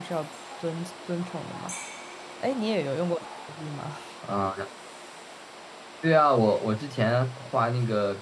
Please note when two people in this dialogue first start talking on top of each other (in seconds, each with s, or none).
none